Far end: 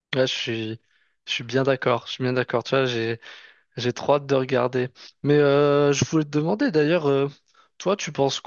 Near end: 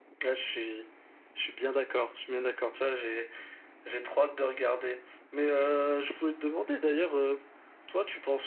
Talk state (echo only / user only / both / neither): echo only